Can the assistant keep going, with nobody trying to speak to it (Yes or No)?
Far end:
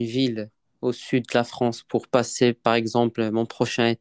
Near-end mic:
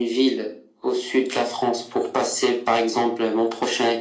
Yes